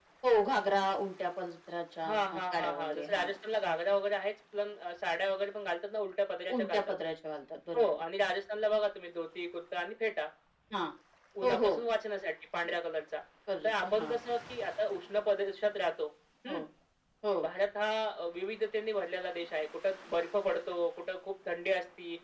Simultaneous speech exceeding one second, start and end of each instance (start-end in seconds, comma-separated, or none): 2.1-3.3